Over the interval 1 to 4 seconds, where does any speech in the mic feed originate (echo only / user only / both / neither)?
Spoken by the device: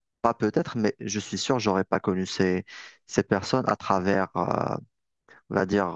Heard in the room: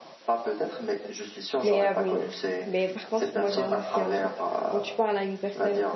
both